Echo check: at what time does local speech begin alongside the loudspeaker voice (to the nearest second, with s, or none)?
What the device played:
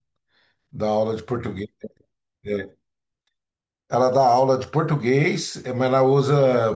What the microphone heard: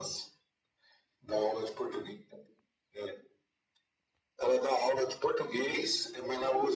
none